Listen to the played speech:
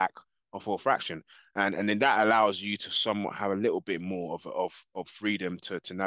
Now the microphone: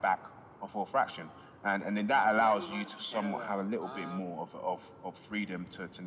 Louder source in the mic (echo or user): echo